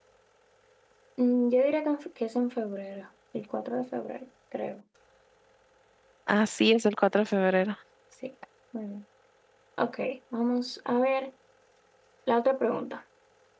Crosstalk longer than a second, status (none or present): none